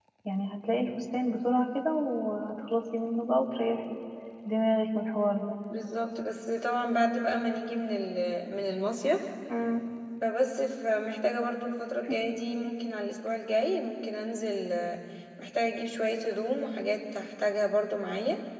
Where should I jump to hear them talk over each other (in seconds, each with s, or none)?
none